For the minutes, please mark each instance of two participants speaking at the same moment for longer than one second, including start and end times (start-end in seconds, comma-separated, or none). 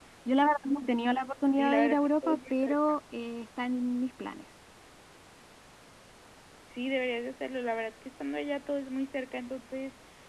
1.5-2.7